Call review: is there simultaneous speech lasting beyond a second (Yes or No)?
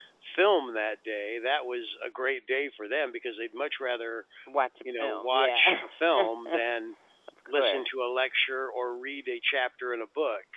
Yes